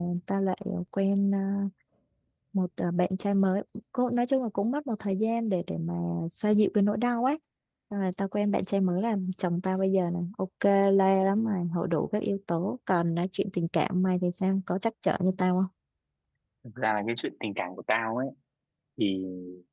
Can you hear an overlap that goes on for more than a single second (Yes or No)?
No